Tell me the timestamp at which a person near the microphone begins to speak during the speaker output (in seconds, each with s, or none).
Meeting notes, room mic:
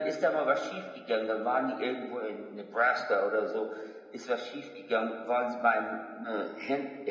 none